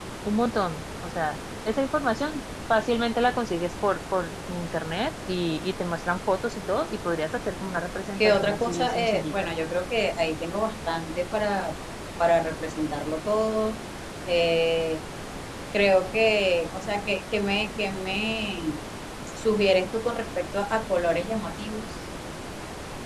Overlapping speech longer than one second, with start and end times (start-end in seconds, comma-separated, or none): 8.2-9.5